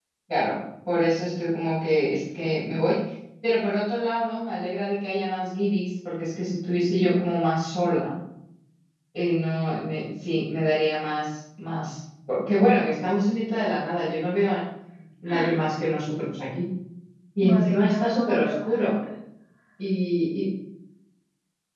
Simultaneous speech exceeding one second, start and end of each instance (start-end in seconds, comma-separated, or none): 17.4-18.9